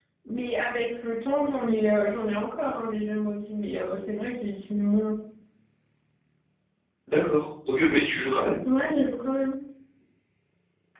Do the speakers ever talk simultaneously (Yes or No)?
No